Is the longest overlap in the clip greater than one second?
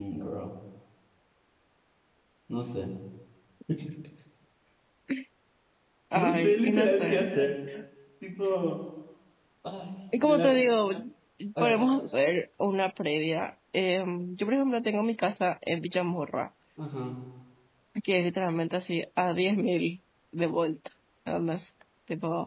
Yes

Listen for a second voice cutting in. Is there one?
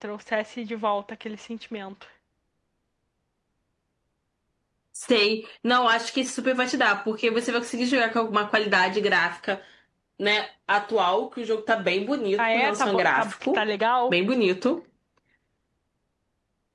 Yes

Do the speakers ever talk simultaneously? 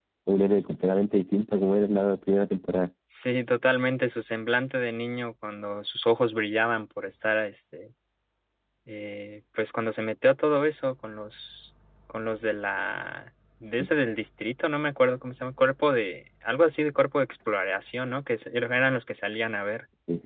No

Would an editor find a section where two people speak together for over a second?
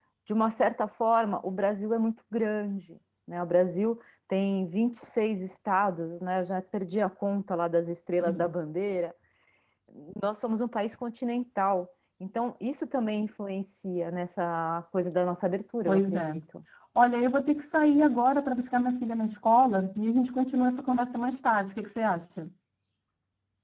No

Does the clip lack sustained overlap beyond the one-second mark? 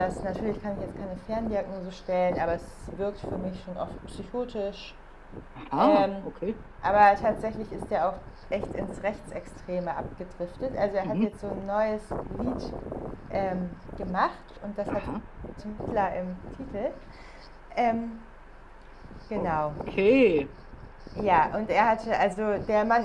Yes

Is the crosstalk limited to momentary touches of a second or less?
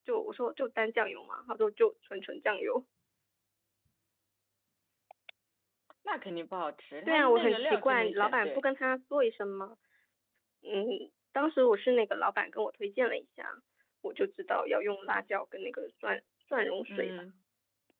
No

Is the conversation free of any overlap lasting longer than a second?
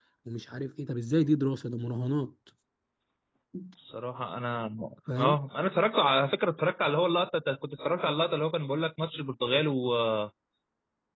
Yes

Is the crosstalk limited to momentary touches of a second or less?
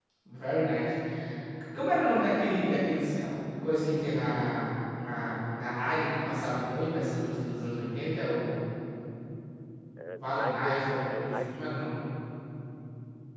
No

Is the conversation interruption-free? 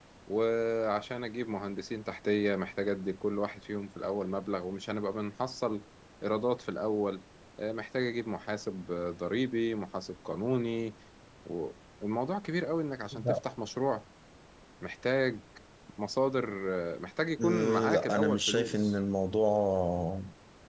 No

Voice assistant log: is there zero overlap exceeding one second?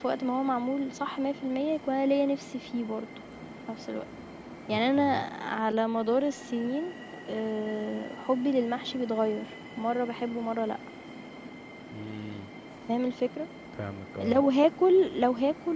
Yes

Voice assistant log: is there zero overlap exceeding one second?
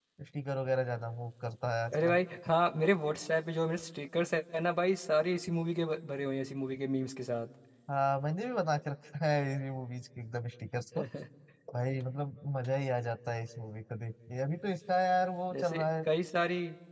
Yes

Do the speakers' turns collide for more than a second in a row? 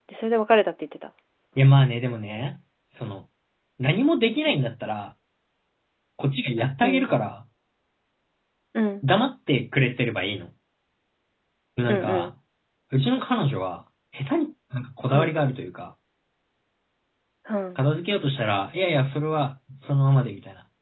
No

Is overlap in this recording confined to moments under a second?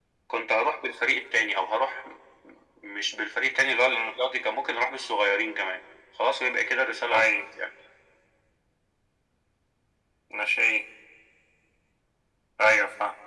Yes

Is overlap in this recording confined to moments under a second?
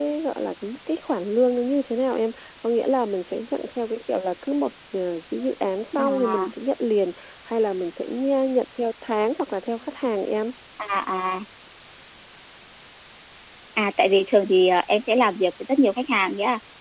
Yes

